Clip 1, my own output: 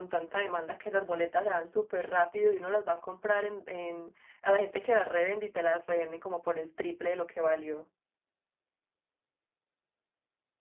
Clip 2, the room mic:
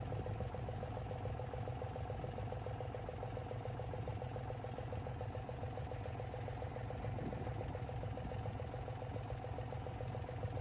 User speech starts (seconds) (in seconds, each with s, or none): none